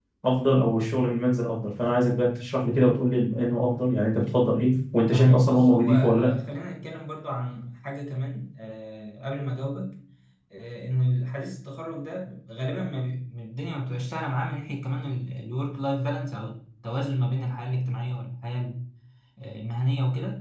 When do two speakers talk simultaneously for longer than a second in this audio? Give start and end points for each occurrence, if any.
5.1-6.3

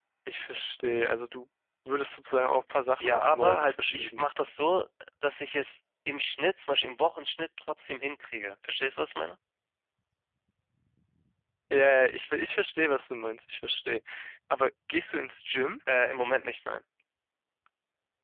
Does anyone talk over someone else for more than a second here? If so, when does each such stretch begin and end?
3.0-4.3

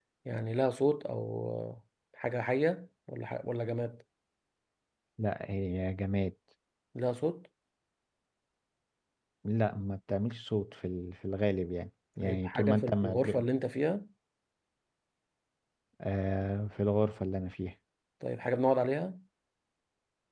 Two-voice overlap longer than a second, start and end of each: 12.2-13.4

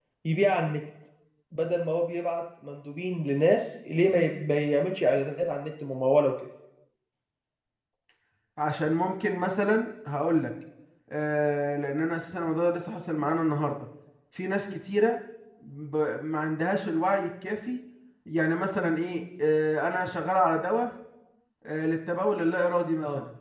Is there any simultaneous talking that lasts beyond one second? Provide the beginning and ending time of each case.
none

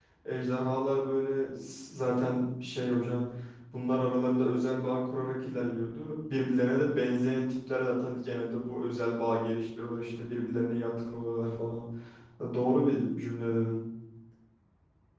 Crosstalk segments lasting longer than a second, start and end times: none

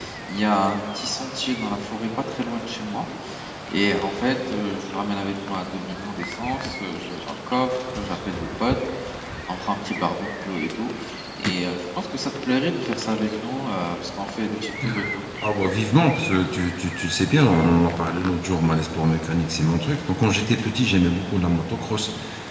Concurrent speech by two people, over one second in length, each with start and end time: none

